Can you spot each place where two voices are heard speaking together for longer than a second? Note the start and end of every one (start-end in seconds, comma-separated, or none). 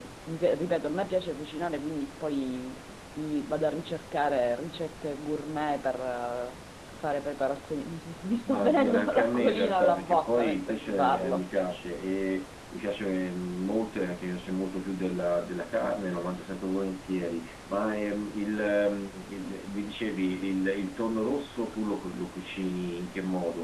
8.5-11.4